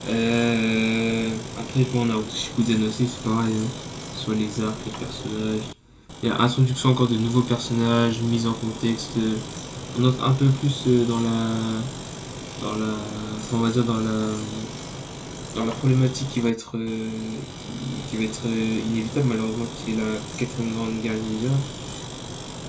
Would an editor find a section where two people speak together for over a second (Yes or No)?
No